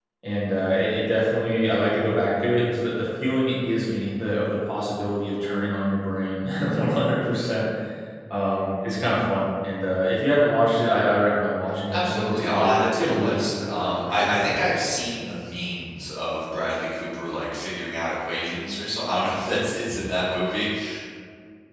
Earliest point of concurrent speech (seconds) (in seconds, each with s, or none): 11.9 s